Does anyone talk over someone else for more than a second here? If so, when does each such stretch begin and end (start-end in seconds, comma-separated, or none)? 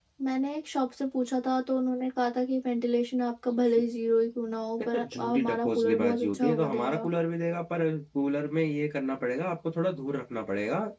4.9-7.1